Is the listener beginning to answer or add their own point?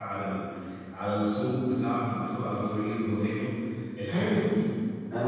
Yes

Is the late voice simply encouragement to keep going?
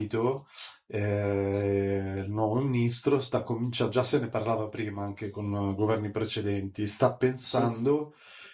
Yes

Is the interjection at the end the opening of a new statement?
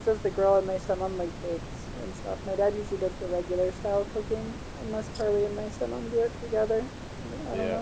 Yes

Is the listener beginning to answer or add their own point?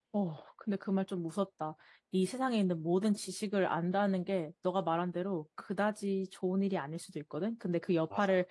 No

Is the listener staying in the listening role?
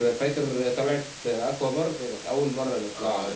No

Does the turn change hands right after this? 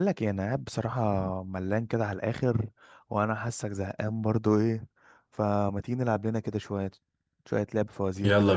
Yes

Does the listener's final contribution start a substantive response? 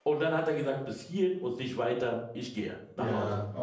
Yes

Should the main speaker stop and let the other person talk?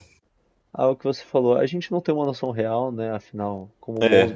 No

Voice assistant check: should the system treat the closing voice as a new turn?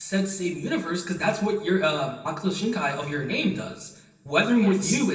No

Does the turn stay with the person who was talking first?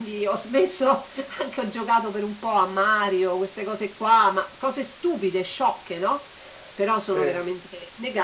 Yes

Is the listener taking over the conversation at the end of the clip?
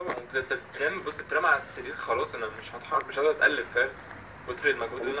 No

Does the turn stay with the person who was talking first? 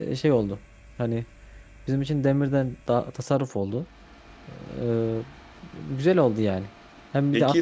Yes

